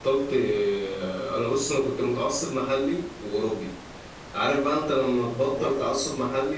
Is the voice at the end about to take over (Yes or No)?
No